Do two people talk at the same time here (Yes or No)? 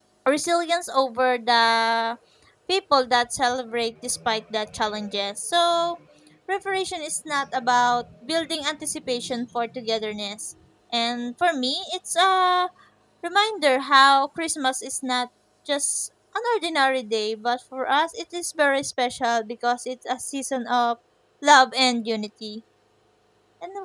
No